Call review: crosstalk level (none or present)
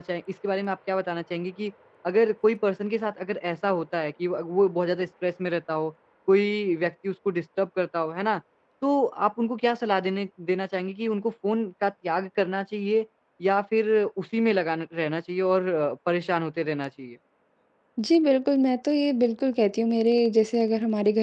none